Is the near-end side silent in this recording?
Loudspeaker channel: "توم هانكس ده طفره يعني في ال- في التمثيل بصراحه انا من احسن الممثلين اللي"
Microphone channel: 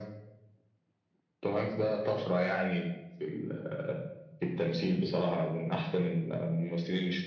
Yes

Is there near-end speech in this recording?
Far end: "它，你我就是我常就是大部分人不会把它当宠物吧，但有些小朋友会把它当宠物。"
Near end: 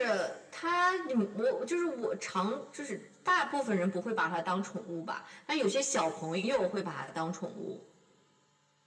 No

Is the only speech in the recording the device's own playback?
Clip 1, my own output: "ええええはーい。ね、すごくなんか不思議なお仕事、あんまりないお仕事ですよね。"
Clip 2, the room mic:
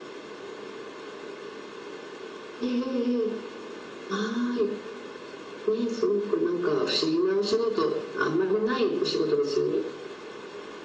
Yes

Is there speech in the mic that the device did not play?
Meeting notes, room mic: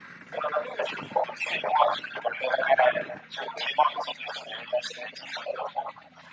No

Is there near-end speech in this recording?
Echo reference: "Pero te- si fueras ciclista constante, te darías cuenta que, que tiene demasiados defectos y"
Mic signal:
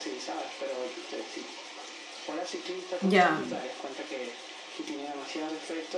Yes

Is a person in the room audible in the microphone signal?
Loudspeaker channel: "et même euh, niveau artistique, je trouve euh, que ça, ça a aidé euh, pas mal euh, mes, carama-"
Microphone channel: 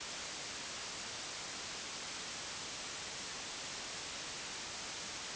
No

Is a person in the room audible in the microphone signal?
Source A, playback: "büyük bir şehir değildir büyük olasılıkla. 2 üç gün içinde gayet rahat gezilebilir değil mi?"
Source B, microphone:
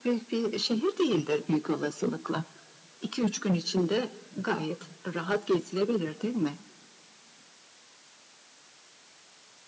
No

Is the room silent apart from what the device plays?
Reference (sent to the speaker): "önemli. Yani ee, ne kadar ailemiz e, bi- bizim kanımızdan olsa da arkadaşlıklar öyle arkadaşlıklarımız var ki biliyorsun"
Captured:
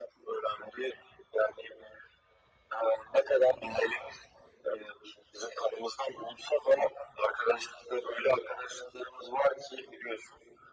Yes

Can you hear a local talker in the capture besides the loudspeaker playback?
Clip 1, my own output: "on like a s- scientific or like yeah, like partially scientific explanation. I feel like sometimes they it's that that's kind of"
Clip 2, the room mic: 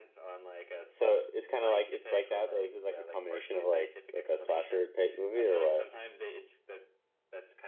Yes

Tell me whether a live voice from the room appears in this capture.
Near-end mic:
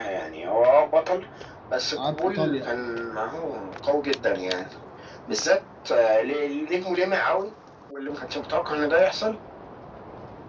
Yes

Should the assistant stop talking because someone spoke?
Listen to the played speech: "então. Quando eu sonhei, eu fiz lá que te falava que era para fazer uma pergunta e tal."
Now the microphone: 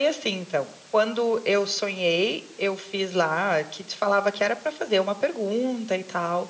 No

